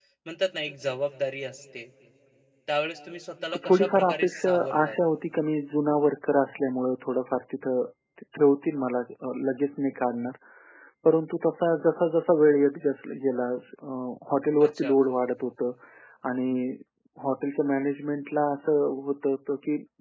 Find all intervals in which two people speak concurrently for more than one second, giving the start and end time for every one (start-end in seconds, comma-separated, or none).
3.7-5.0